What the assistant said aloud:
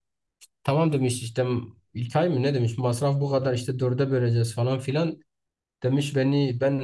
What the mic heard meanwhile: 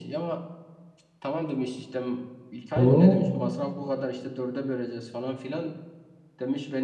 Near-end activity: present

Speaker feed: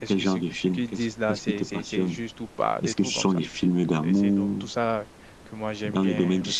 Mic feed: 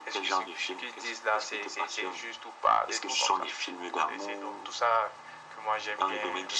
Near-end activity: none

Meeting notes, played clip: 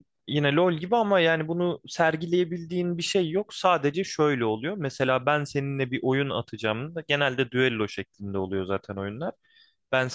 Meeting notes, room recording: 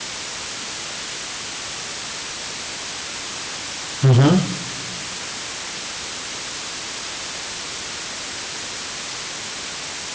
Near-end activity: present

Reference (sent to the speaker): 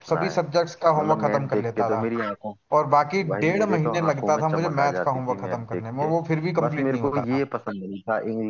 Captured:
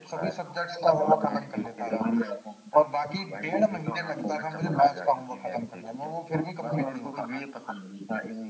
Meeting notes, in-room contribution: none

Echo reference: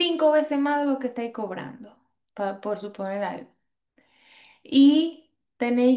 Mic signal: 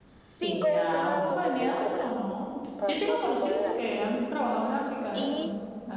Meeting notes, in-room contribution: present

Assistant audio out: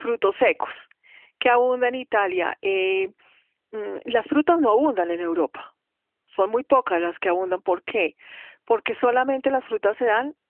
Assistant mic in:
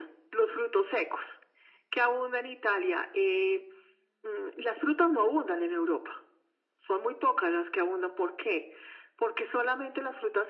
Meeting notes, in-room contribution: none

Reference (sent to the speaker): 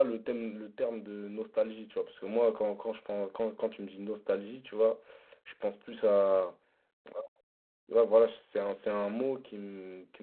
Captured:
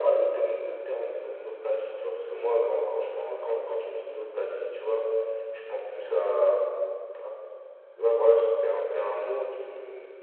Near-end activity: none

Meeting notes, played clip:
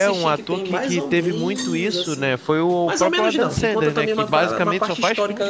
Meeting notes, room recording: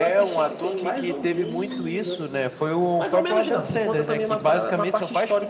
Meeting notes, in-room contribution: none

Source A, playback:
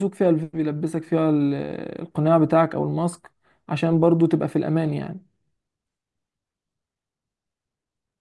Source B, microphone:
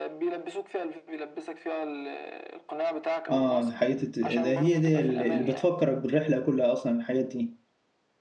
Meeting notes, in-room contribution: present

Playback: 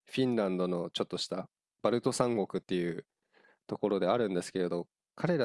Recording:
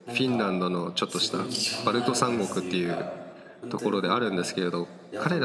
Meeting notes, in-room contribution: present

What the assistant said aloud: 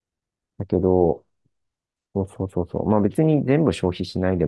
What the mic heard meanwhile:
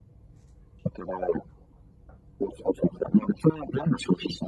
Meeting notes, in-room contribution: none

